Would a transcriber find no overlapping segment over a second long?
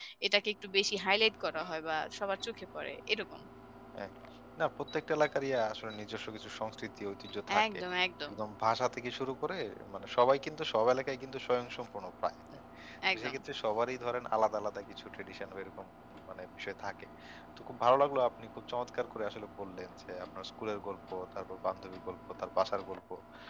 Yes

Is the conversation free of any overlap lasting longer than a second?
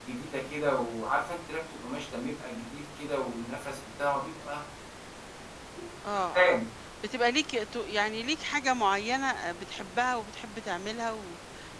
Yes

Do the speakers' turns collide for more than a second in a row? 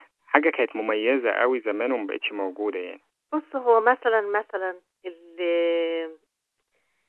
No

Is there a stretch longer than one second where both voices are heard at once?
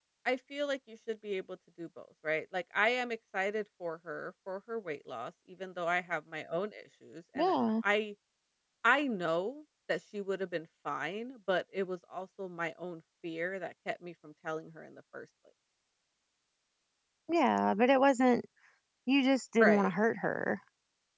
No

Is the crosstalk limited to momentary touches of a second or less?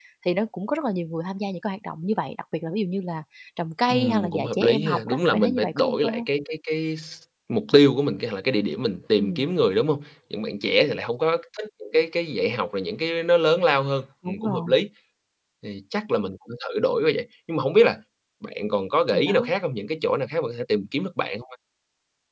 No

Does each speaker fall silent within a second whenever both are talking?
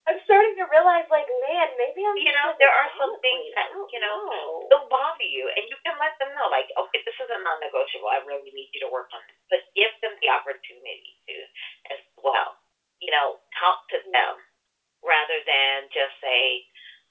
No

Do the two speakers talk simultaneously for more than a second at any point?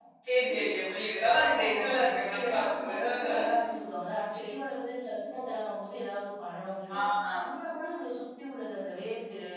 Yes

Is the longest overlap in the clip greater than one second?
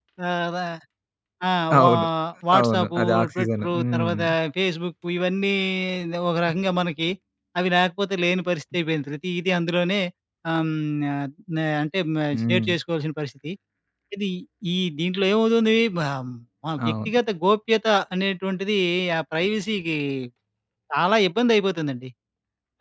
Yes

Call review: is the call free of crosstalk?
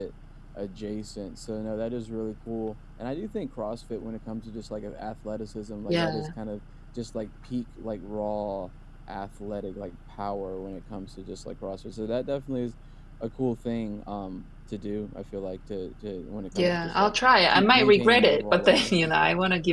No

